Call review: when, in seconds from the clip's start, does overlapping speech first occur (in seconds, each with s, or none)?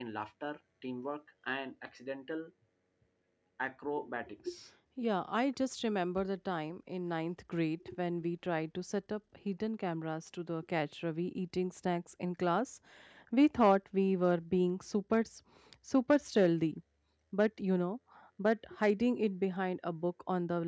none